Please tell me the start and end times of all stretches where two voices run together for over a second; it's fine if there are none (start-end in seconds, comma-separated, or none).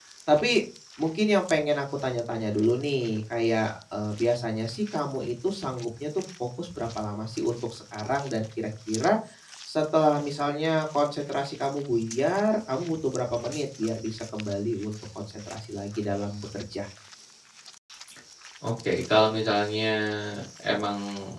none